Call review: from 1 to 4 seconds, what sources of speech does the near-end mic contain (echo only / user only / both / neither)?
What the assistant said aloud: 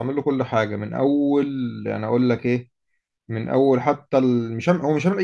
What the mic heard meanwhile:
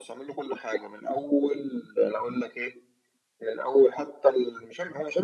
echo only